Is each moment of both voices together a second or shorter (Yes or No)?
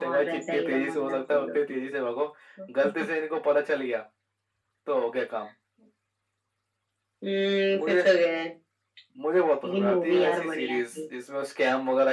No